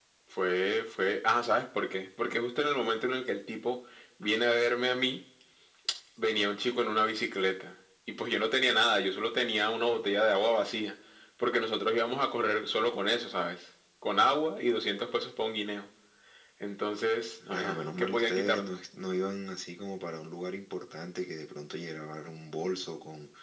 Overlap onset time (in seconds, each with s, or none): 17.5 s